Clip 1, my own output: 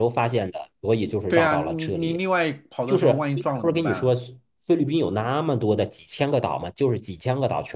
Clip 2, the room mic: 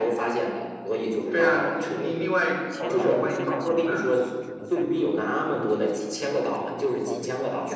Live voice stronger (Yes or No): No